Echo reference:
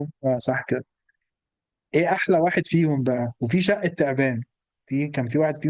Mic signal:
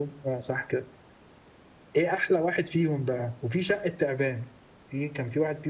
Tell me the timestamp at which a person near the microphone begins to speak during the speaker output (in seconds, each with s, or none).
none